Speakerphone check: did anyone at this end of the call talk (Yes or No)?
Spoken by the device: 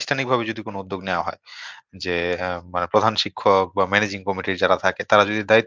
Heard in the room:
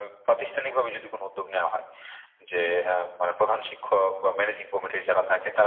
No